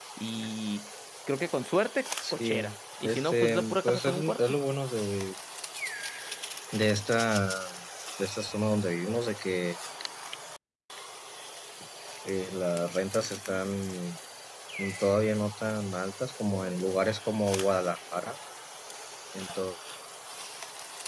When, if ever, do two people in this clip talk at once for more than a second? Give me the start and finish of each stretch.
3.0-4.4

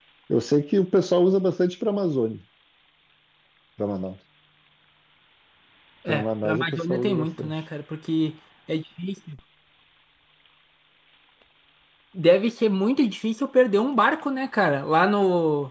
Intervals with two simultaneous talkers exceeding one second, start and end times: 6.1-7.6

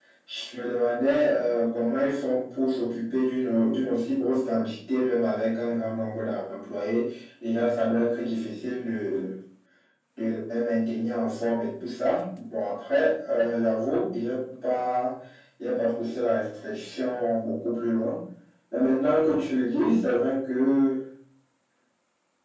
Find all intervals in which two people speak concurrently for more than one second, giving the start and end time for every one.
none

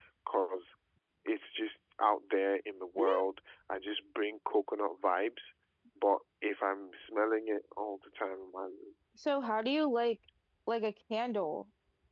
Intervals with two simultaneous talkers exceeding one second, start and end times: none

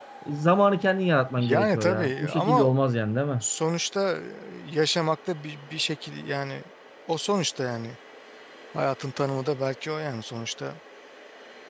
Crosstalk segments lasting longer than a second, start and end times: 1.4-2.7

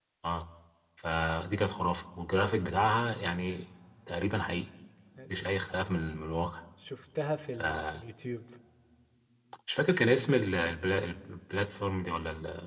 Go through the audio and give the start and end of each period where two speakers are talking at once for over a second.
none

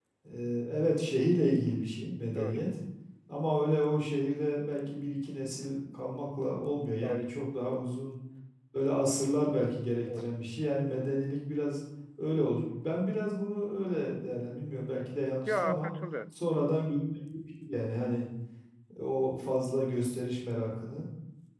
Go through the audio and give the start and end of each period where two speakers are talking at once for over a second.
none

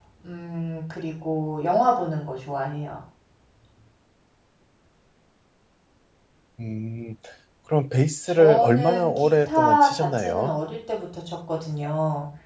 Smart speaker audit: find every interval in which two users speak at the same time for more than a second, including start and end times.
8.3-10.5

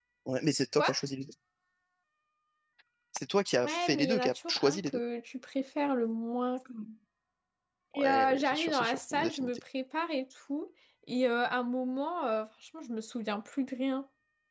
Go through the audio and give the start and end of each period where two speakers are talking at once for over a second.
3.6-5.0, 7.9-9.5

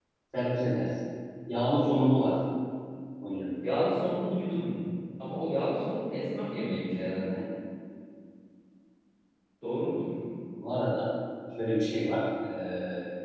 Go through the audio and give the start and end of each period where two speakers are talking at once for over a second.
none

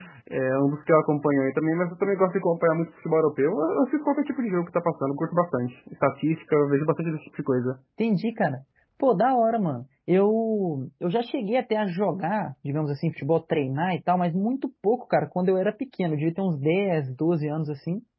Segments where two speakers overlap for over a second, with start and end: none

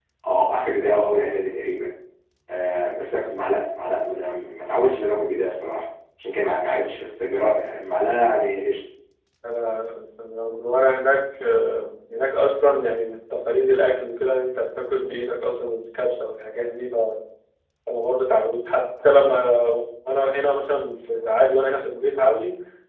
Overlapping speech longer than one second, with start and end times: none

